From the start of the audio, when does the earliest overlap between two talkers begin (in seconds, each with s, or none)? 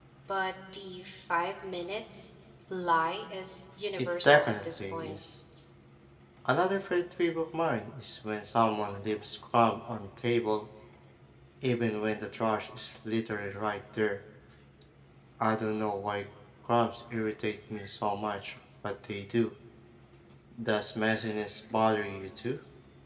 4.0 s